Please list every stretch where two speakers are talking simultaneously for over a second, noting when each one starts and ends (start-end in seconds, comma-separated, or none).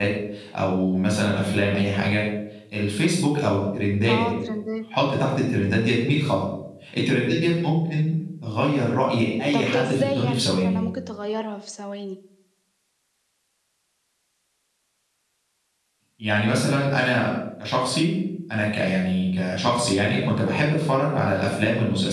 9.5-10.8